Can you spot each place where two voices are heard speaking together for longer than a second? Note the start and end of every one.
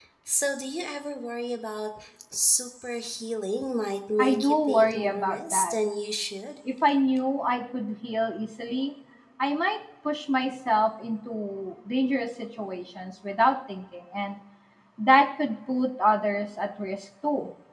4.2-5.7

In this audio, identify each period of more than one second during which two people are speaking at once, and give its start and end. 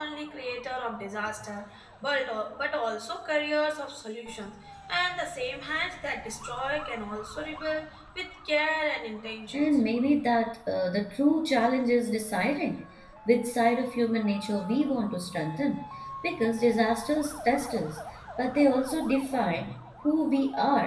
none

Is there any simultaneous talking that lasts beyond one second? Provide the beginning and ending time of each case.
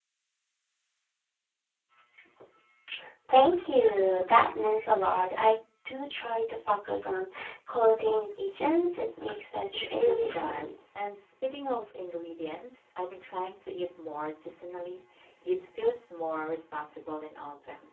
9.7-11.0

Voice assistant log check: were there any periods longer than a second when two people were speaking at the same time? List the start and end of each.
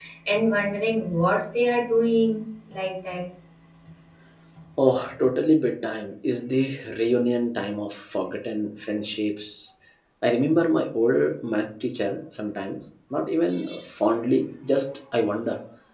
none

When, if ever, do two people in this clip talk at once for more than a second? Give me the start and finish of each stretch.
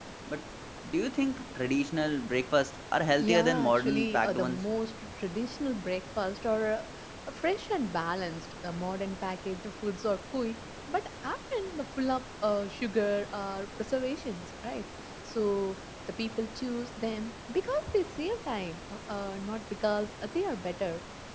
3.2-4.6

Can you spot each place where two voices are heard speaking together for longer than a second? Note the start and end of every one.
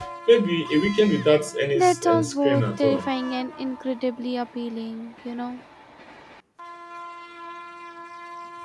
1.8-3.1

